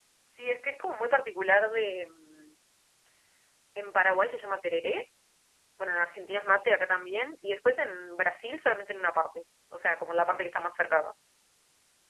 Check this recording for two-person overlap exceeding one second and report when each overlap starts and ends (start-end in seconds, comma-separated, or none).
none